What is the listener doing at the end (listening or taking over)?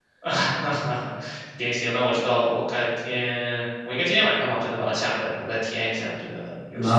taking over